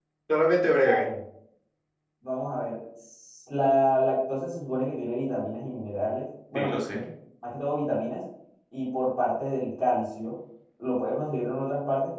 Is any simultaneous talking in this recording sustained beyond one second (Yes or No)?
No